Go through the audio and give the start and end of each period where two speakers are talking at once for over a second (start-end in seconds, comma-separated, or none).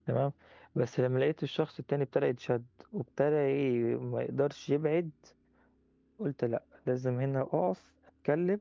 none